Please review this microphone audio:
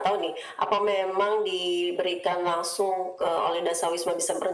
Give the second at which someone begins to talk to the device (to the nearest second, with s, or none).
none